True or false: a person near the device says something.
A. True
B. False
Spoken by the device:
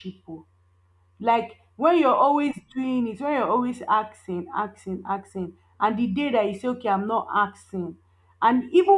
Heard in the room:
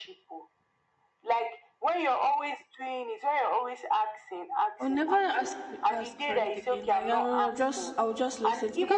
A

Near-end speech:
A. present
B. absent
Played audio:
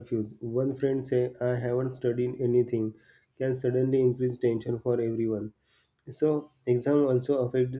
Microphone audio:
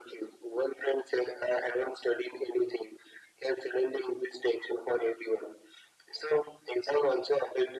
B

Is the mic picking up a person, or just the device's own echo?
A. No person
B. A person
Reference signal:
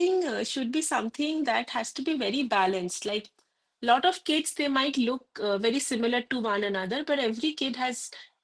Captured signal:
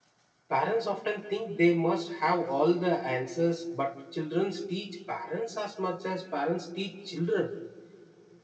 B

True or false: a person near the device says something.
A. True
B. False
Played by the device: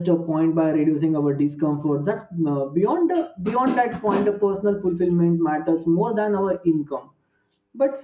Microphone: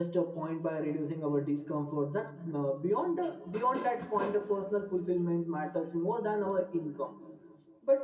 B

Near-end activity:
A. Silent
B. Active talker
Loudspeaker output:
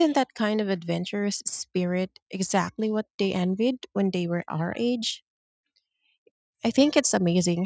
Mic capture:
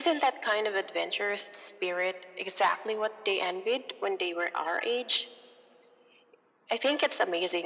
A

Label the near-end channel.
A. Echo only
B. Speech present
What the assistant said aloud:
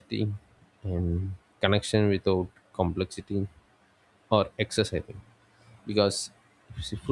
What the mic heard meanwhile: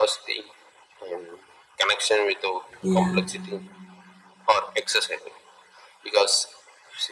B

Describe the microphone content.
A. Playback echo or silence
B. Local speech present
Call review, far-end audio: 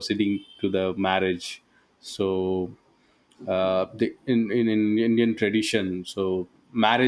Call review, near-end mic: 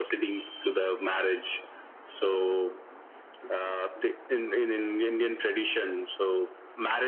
A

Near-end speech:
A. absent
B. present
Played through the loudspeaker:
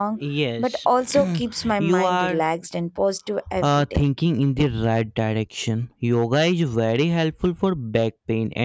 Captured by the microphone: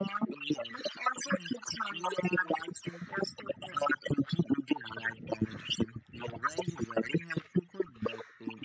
A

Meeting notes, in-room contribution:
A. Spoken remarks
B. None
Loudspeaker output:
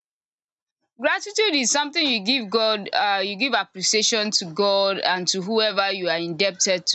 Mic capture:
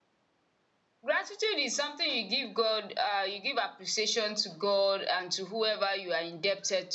B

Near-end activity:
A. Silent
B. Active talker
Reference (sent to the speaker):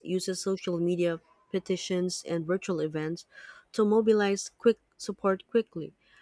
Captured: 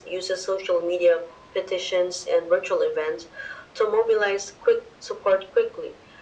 A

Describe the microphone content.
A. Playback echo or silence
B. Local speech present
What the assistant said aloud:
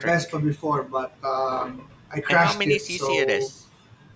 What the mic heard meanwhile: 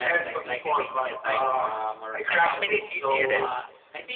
B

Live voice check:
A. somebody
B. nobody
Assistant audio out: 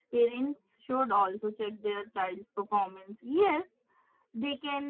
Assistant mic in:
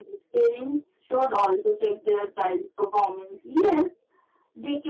B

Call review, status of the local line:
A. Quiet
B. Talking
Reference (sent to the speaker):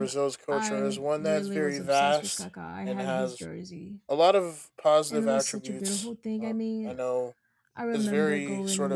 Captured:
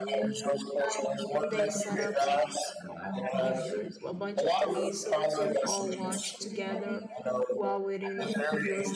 B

